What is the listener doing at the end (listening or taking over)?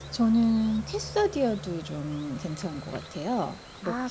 taking over